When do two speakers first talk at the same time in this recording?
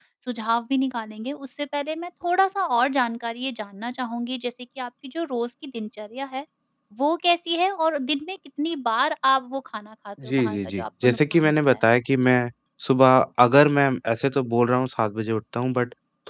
10.2 s

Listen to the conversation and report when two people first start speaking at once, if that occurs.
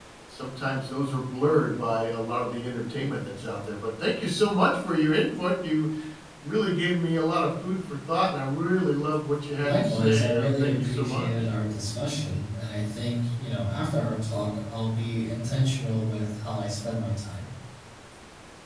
9.6 s

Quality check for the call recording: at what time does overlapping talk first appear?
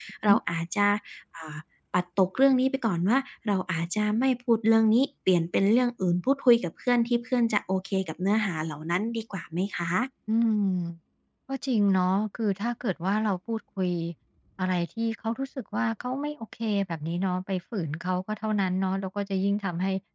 none

